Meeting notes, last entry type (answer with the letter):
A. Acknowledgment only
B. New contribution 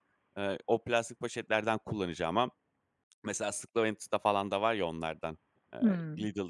A